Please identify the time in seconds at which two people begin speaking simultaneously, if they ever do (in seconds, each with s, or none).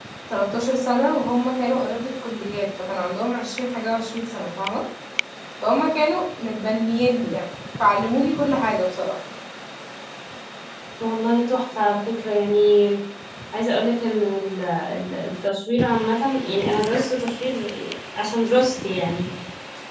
none